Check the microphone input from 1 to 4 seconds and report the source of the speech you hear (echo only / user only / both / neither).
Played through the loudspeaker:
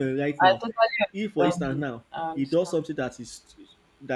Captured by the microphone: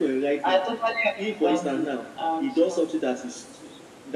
echo only